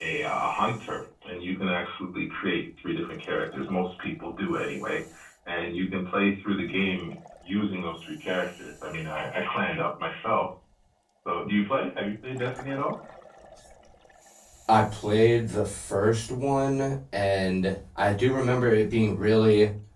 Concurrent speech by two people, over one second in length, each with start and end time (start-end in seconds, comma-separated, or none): none